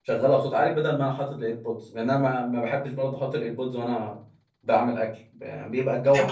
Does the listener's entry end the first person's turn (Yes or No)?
No